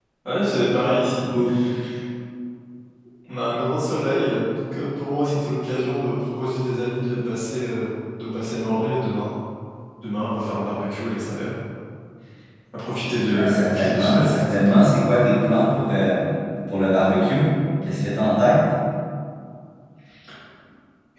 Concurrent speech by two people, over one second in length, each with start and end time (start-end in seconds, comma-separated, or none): 13.3-14.8